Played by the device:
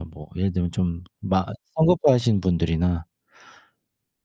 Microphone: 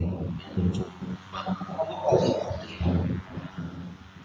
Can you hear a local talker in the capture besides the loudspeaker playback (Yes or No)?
No